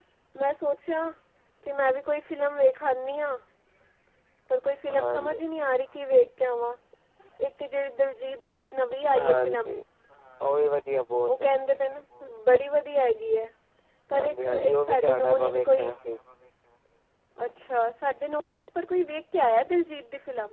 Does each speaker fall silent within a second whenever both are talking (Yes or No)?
No